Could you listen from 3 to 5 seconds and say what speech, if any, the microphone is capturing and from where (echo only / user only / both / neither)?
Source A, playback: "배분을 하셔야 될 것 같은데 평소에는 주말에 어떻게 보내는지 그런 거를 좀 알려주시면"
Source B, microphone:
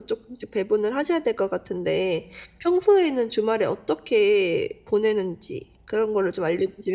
echo only